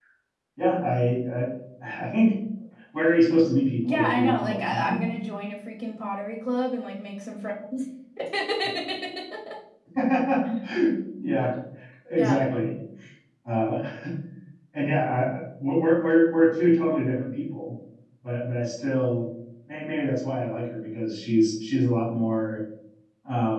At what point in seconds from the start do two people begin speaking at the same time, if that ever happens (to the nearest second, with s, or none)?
4 s